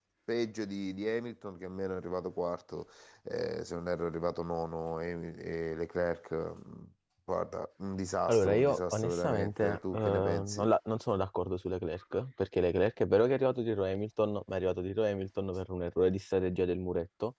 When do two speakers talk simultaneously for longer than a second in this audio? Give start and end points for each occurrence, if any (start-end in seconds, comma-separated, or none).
8.3-10.6